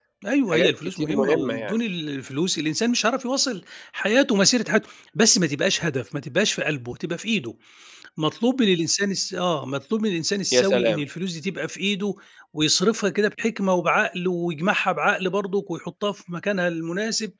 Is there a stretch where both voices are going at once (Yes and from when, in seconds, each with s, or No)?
Yes, from 0.5 s